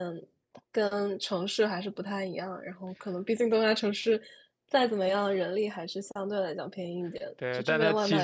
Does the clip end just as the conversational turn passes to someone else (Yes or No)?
Yes